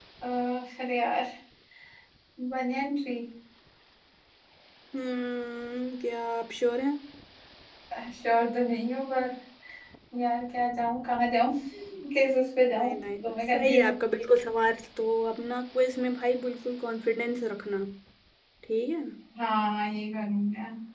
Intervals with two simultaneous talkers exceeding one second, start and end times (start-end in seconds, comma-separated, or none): 12.7-13.9